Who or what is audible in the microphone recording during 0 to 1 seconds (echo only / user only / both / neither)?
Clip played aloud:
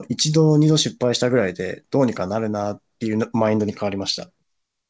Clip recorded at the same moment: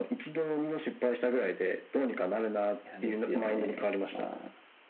echo only